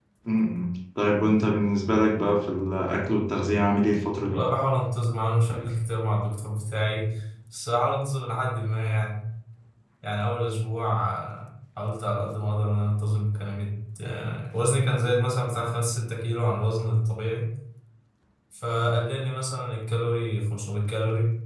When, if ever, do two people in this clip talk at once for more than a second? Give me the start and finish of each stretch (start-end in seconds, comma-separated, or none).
none